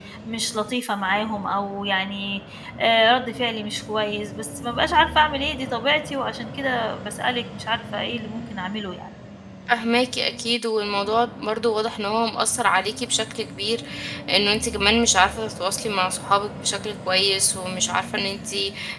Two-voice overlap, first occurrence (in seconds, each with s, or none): none